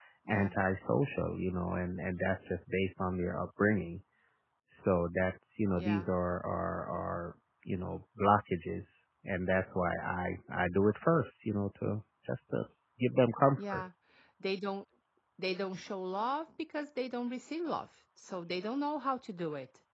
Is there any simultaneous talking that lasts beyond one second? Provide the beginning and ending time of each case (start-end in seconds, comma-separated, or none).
none